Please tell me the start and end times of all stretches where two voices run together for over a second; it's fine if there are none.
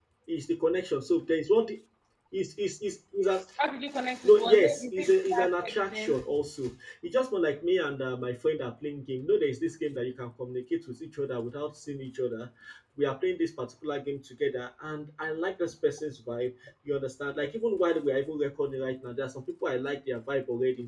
4.2-6.2

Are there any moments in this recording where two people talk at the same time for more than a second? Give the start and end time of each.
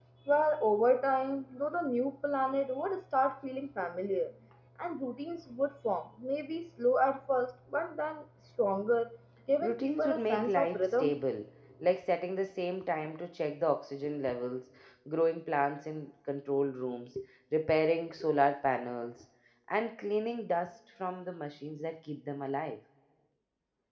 9.6-11.1

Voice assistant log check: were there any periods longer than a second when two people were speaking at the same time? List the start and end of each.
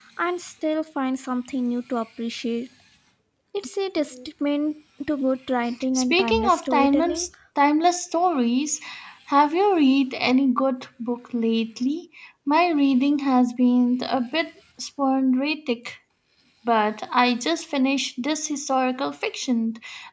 6.0-7.3

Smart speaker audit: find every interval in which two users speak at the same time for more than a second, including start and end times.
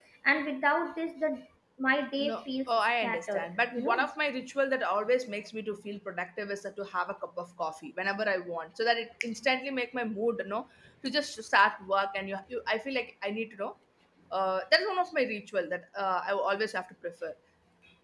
2.2-4.1

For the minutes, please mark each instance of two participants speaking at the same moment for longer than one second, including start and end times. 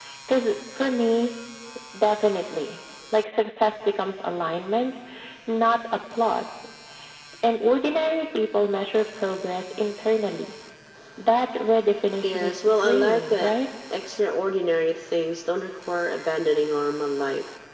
12.2-13.5

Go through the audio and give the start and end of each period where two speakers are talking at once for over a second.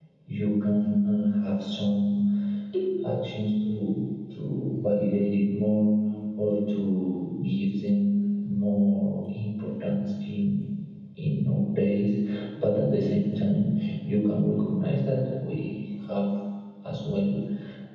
none

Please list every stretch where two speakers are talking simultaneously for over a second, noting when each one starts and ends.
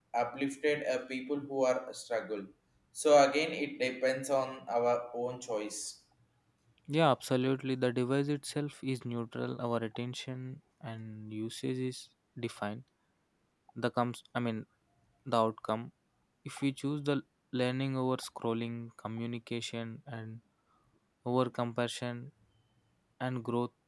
none

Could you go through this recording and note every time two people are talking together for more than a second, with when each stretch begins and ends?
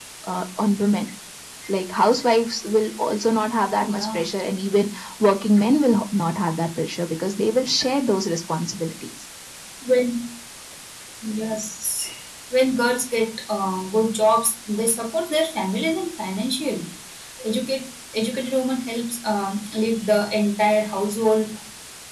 none

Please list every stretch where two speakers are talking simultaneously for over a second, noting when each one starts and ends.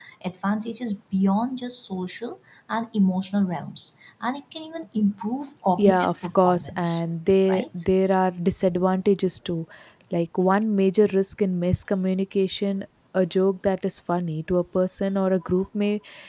5.8-7.0

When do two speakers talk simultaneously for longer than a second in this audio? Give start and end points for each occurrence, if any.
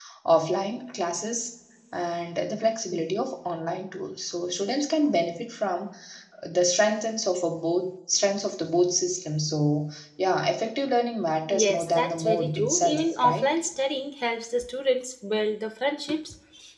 11.5-13.5

